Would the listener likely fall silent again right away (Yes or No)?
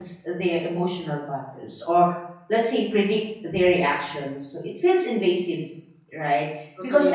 Yes